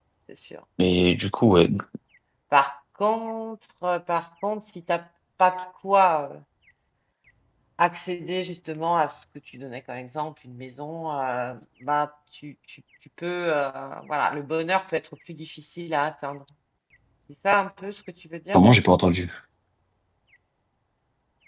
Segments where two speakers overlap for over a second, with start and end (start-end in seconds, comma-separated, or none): none